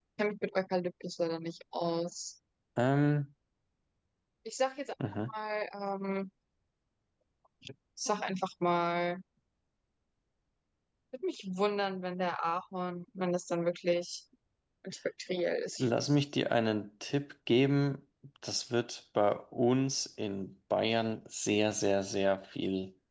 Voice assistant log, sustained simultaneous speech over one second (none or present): none